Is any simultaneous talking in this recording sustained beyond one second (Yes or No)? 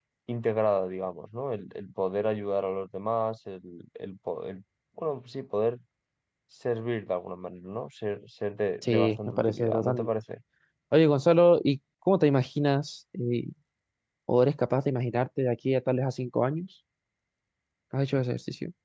Yes